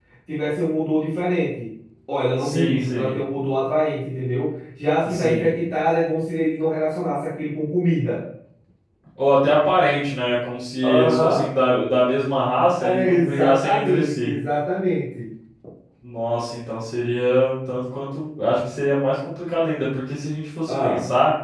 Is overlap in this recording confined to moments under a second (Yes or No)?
No